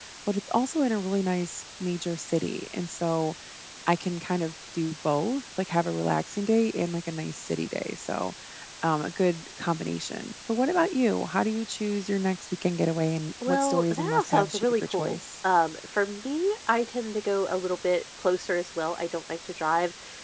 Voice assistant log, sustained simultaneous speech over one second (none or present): present